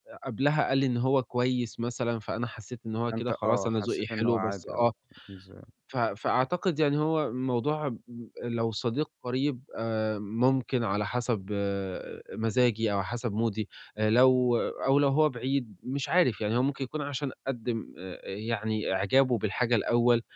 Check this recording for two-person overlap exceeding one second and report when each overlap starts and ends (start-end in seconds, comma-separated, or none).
3.1-4.9